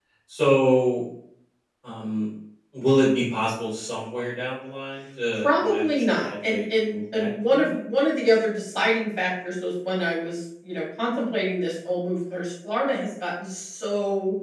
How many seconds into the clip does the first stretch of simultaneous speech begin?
5.4 s

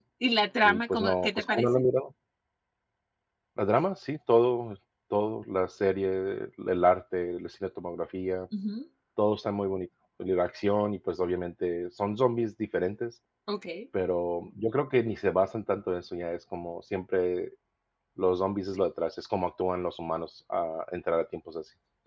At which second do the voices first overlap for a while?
0.6 s

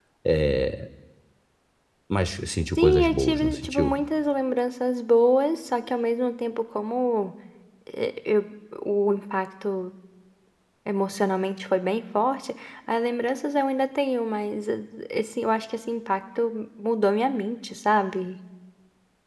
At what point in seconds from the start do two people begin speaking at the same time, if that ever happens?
2.8 s

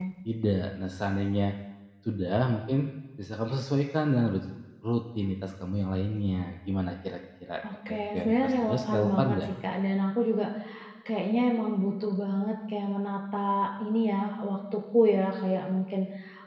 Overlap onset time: 7.6 s

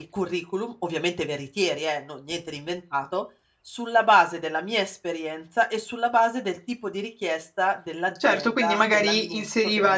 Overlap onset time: 8.2 s

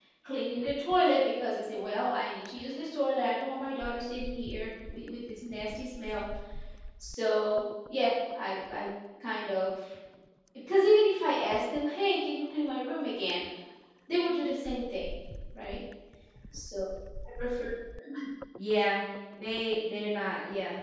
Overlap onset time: none

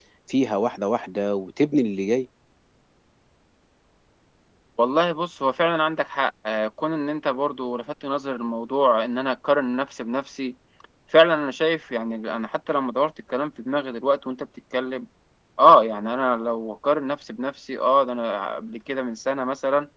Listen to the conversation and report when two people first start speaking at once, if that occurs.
none

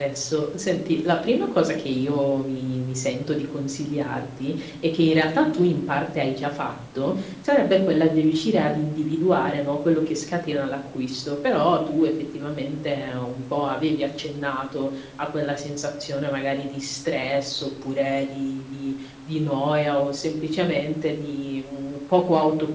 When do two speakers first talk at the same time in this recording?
none

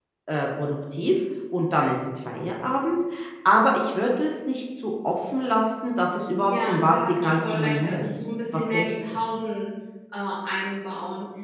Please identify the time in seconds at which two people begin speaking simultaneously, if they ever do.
6.4 s

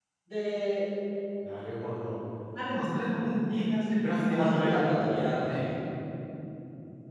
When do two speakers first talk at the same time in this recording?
4.3 s

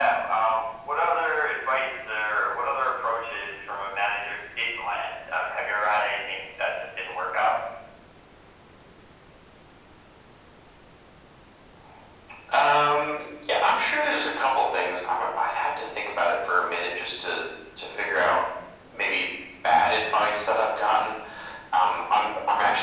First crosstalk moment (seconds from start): none

